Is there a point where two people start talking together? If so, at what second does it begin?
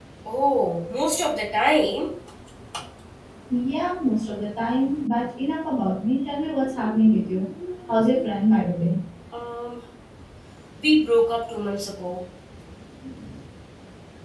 none

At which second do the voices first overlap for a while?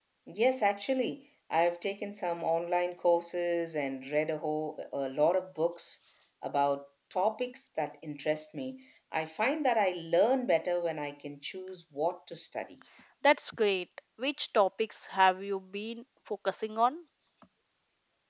none

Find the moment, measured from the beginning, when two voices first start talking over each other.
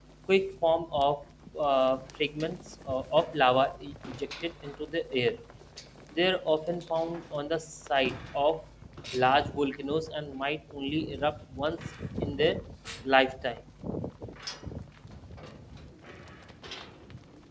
none

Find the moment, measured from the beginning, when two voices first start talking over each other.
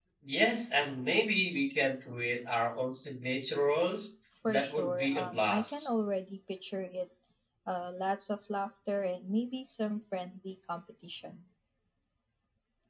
4.4 s

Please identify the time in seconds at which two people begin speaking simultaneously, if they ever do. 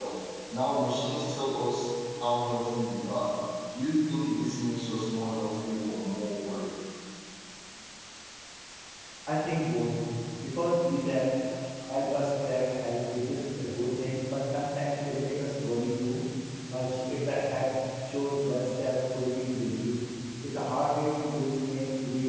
none

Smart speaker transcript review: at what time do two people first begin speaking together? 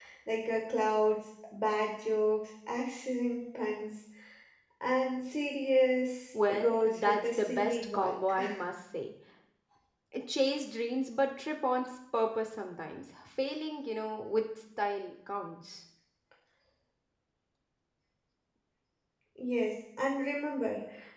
6.3 s

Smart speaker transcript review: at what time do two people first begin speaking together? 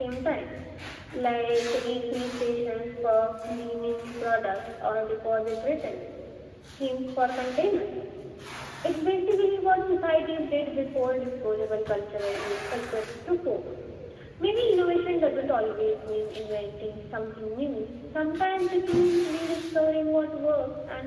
none

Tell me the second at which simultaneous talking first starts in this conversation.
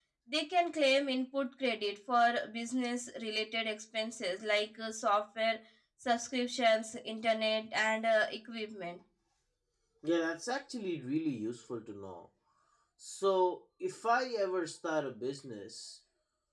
none

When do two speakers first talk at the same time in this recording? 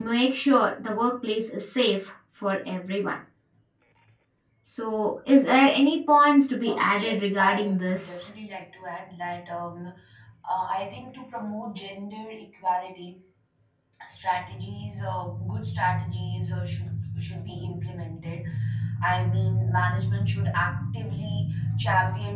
6.6 s

